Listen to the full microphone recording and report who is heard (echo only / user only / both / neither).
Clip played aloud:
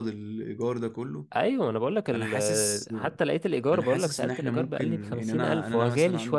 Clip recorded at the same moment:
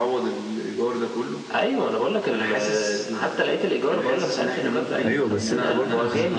both